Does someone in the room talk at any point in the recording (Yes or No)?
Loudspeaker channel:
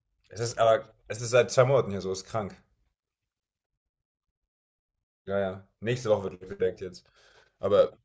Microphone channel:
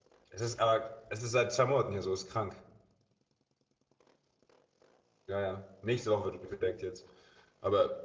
No